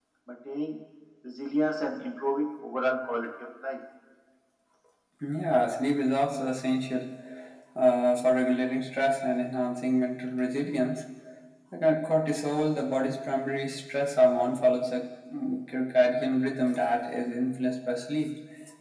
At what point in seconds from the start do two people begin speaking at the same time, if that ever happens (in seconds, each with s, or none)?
none